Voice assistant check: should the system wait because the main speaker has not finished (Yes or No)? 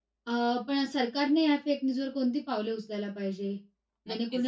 No